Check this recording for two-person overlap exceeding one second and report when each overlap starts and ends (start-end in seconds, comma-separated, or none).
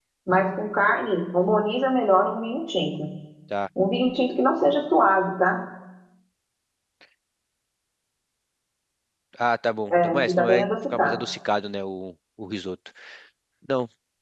9.9-11.2